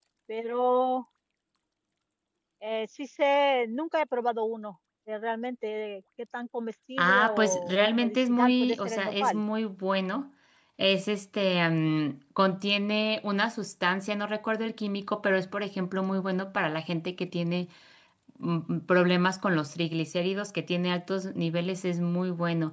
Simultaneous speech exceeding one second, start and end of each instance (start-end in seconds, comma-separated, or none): 7.0-9.4